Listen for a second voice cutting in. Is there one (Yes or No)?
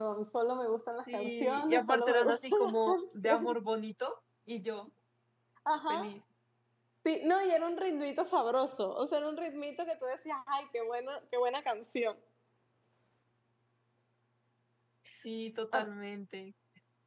Yes